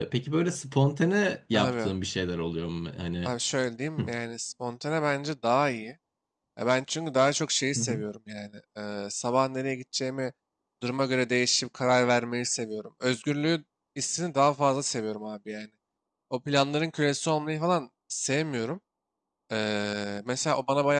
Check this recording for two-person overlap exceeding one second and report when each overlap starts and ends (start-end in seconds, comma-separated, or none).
none